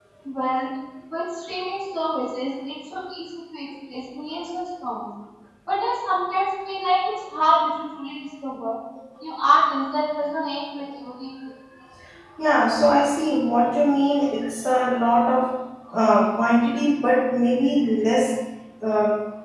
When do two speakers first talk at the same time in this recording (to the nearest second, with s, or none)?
none